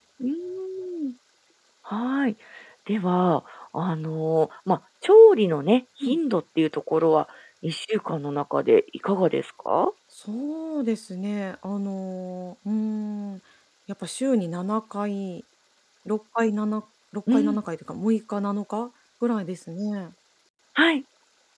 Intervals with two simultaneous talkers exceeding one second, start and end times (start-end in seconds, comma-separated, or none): none